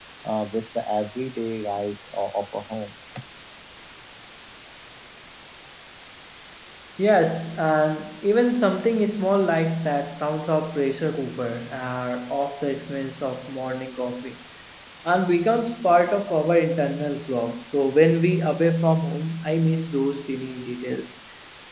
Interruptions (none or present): none